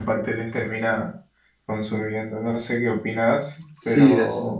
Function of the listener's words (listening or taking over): taking over